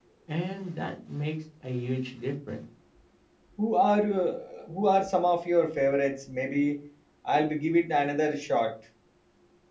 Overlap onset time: none

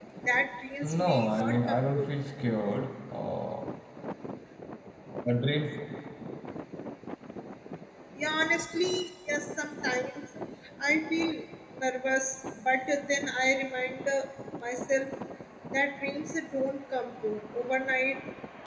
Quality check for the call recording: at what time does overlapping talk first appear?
1 s

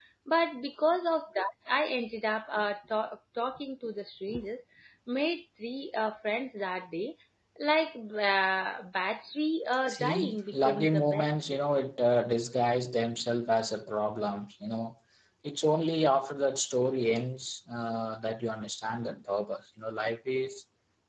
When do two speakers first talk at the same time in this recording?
10 s

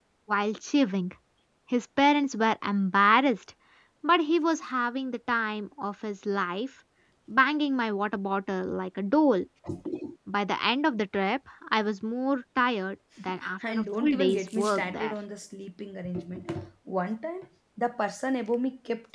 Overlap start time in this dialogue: 14 s

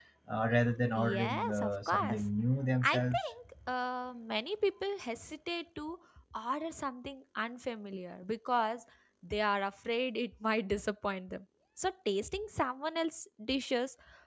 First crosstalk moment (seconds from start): 1 s

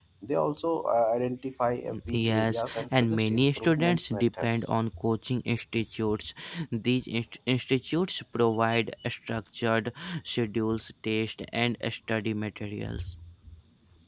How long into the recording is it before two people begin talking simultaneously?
2 s

